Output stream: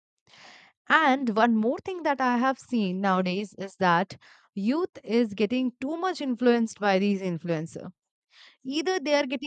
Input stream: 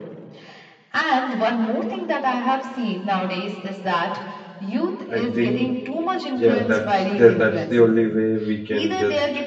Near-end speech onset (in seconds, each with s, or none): 5.1 s